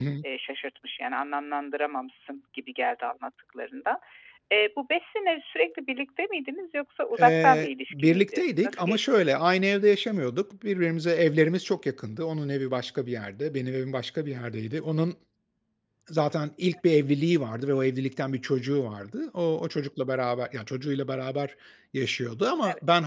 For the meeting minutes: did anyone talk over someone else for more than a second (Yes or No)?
Yes